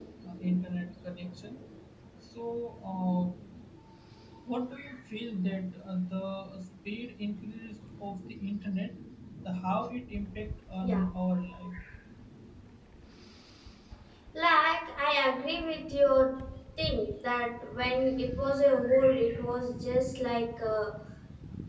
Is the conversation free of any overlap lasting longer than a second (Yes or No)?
Yes